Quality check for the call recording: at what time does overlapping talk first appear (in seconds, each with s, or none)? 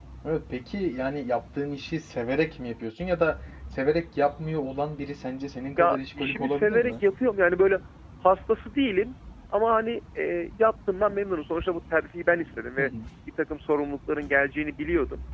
5.8 s